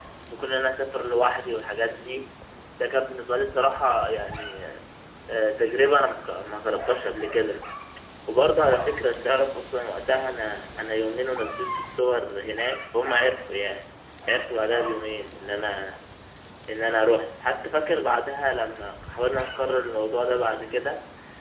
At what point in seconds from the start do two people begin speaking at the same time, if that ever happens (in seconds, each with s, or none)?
none